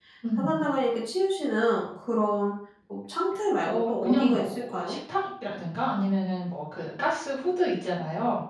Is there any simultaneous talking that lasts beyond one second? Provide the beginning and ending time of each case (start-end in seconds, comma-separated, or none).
3.6-5.0